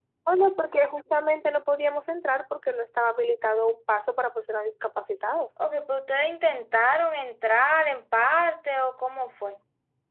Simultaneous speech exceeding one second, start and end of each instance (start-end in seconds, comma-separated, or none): none